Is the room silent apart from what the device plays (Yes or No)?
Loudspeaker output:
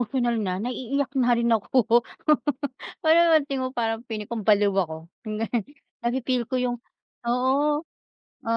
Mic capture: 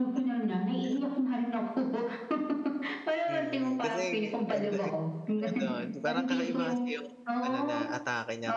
No